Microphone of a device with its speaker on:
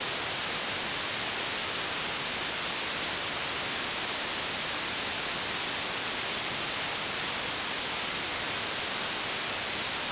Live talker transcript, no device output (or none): none